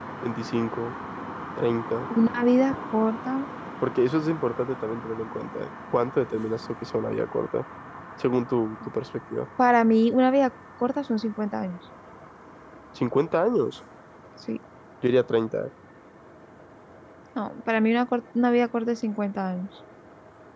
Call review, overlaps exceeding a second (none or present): none